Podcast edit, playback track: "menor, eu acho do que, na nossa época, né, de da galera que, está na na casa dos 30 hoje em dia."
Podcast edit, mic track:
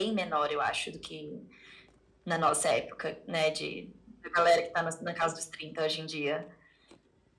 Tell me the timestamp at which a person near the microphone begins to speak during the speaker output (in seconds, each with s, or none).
none